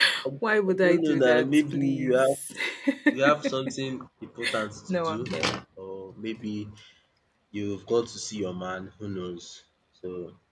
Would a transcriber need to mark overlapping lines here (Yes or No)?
Yes